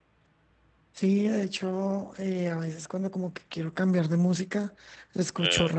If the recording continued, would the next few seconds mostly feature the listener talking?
No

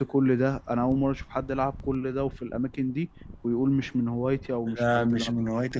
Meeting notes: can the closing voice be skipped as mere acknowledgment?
No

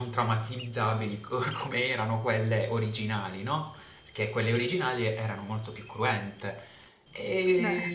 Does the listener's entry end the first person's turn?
No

